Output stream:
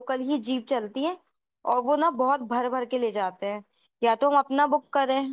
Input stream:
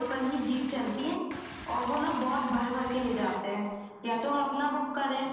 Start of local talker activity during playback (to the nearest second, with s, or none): none